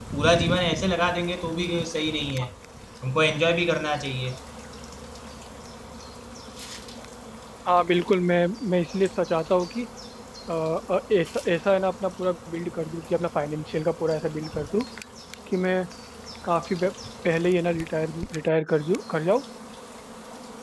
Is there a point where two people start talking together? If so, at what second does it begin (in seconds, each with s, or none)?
none